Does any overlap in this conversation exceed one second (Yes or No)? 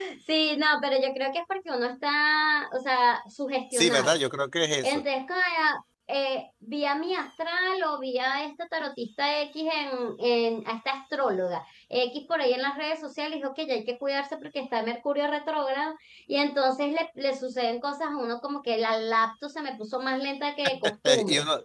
No